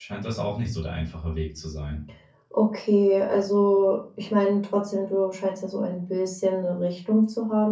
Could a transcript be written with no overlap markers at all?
Yes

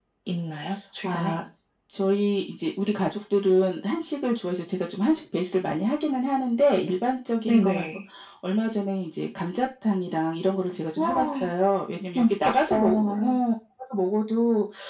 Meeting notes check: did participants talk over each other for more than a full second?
Yes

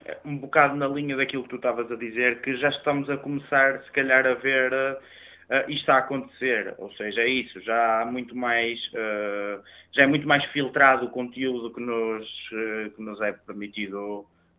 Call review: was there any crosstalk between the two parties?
No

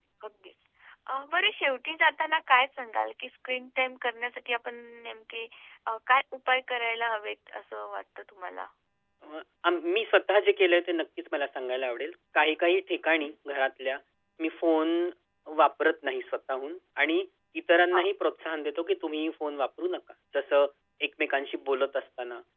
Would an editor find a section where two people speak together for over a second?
No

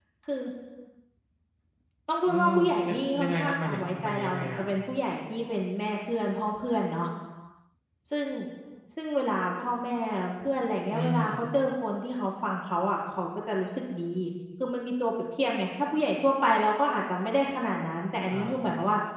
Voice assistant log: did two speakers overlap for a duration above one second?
Yes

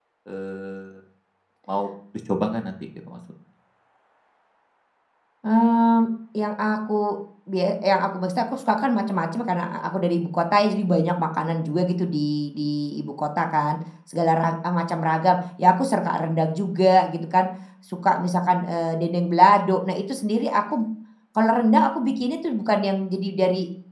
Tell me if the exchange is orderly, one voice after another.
Yes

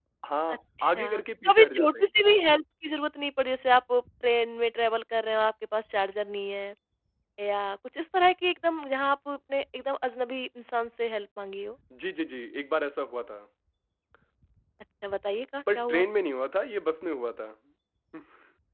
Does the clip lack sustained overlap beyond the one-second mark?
No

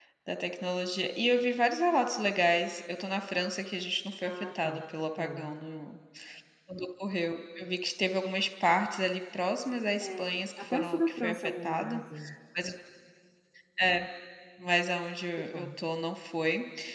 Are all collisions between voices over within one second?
No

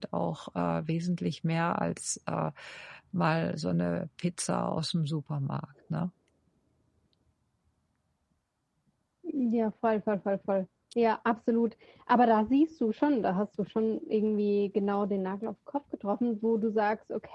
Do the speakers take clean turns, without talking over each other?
Yes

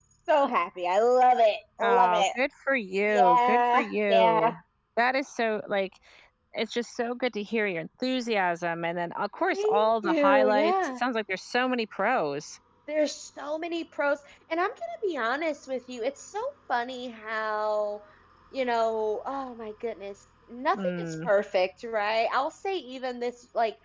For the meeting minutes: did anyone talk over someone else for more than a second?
Yes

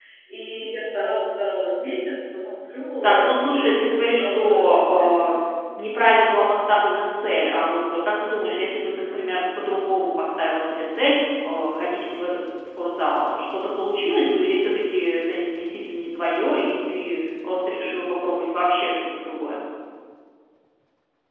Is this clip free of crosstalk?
No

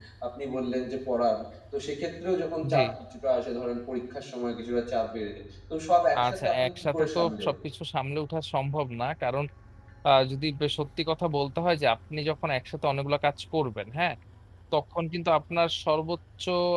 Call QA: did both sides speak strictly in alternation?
No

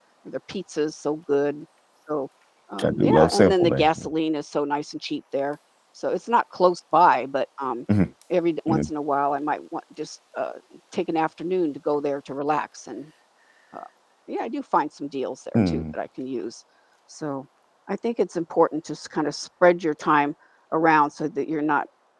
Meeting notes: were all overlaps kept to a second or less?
No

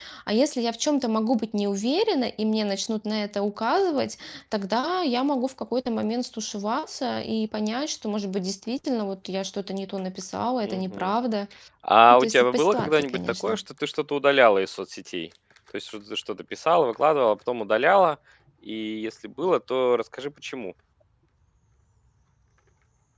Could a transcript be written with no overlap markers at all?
No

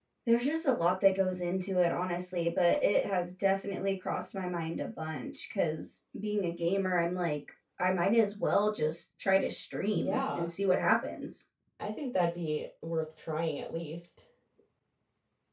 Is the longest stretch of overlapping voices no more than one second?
Yes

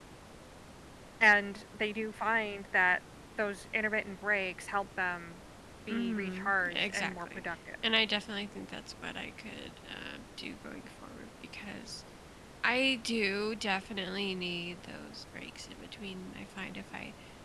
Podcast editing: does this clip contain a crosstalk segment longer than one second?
Yes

